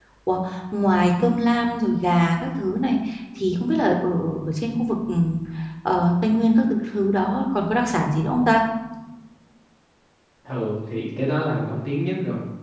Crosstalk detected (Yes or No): No